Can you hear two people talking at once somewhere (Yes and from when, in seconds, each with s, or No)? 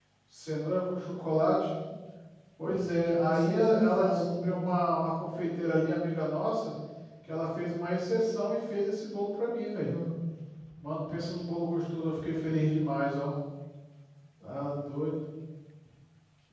Yes, from 2.7 s